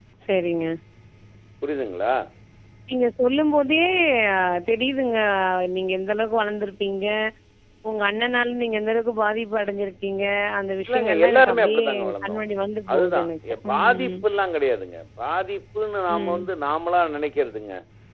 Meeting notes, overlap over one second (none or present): present